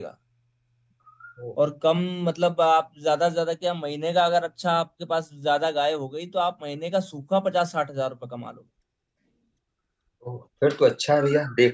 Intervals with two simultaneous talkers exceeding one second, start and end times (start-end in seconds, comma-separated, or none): none